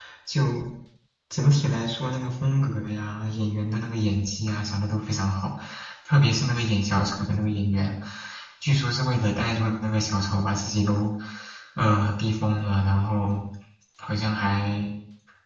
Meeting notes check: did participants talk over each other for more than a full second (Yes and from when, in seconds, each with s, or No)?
No